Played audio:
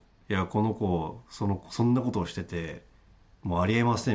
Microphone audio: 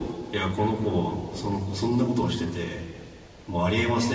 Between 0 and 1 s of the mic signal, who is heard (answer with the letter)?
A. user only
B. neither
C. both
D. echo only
D